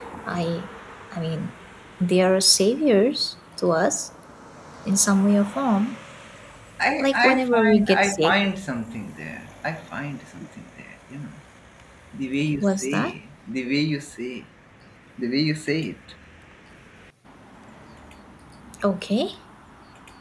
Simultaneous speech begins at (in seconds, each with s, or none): 7.0 s